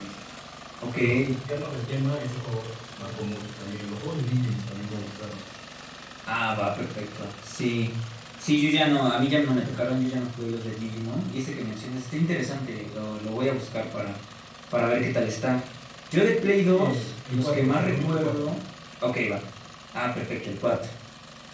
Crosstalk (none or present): present